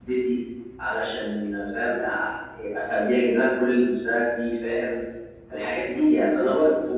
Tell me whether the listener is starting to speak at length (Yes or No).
No